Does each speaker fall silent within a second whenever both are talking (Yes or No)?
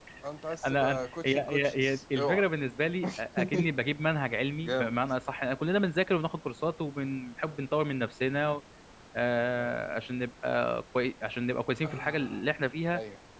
No